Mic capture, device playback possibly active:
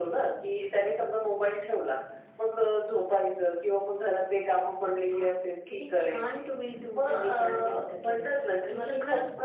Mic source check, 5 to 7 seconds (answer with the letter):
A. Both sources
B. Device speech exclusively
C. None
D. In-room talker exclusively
B